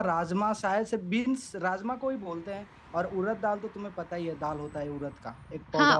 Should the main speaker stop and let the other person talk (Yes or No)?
Yes